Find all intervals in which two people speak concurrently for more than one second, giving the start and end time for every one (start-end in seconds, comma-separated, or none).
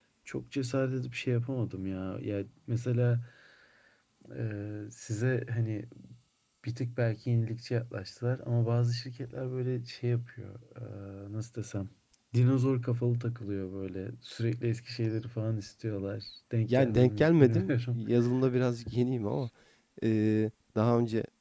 16.7-18.0